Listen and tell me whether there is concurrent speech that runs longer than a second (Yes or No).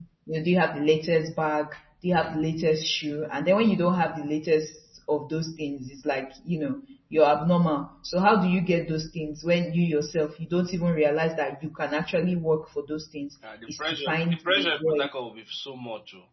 Yes